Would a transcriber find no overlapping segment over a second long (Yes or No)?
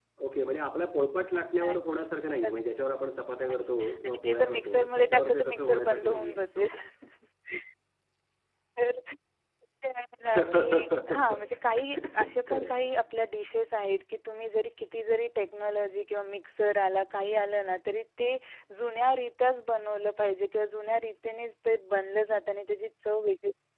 No